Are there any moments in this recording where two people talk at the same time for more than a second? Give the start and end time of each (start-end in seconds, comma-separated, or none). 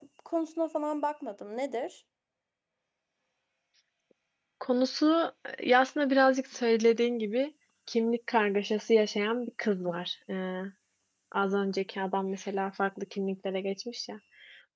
none